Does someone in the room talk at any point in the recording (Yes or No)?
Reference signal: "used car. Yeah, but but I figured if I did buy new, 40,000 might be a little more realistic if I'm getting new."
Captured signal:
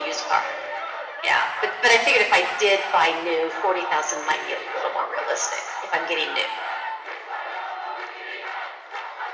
No